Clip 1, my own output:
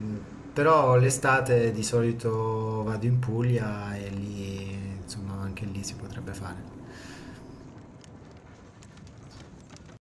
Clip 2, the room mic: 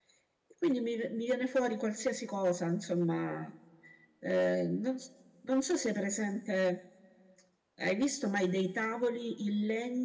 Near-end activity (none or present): present